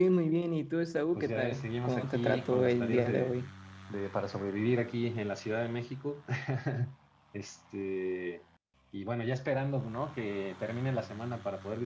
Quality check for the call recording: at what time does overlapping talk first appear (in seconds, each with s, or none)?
1.2 s